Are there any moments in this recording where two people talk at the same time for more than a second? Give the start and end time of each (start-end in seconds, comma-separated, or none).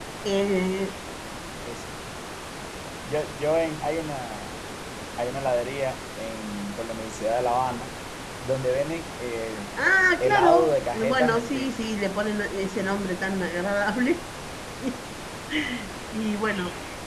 10.2-11.8